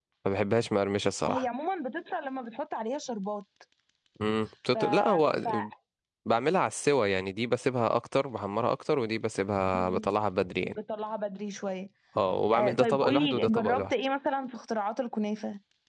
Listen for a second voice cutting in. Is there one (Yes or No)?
Yes